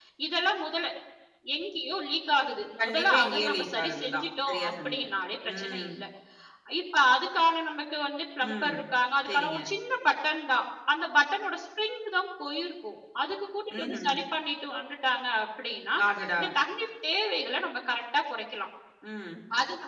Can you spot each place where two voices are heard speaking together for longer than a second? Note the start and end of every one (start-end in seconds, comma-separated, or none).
2.8-5.0